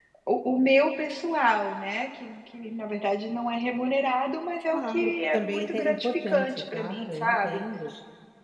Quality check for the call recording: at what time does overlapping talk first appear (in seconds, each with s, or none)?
4.7 s